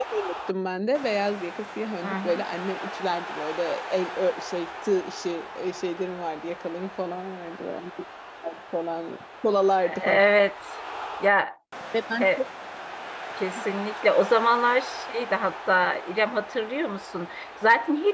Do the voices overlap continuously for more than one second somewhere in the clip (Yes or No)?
No